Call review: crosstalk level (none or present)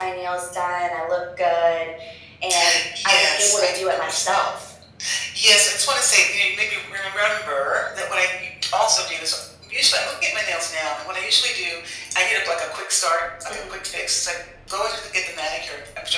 present